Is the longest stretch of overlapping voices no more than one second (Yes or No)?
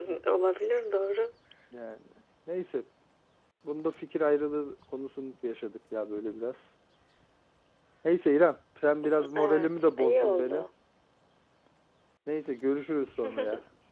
No